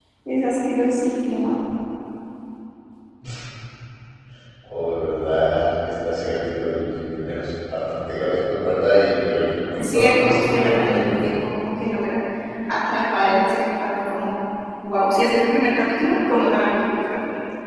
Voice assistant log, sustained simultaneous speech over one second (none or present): present